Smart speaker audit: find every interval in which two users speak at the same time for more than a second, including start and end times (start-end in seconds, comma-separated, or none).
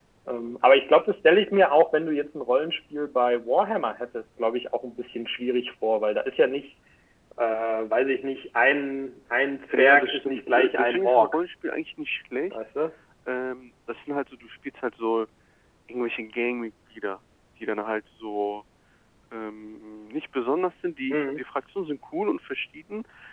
9.7-11.4